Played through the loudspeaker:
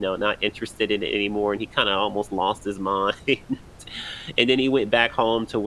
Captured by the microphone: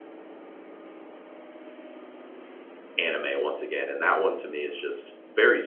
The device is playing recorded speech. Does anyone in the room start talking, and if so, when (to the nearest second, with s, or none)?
3 s